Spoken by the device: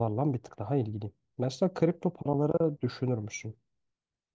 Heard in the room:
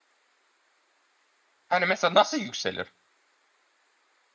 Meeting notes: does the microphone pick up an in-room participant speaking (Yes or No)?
Yes